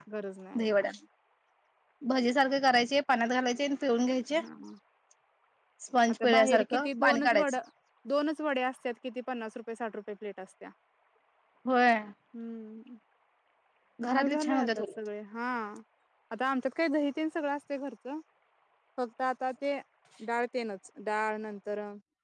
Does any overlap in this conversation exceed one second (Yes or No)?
Yes